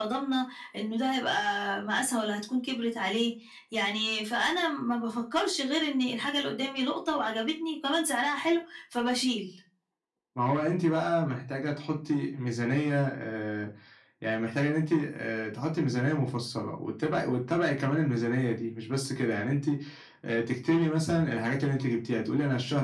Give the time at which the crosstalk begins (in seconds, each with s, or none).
none